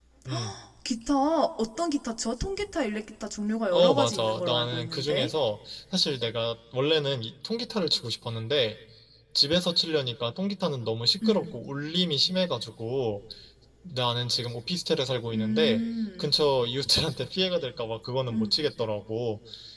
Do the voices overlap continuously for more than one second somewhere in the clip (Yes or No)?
Yes